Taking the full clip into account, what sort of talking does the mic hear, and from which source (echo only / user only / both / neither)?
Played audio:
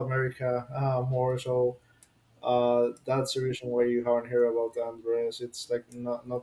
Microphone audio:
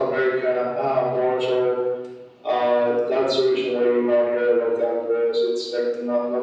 echo only